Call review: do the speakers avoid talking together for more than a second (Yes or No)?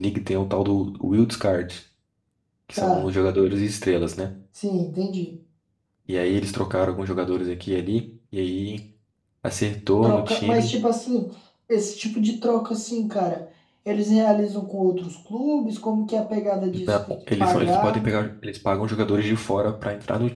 No